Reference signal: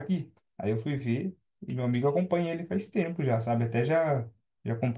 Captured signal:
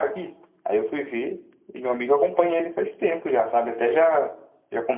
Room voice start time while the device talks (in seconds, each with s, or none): none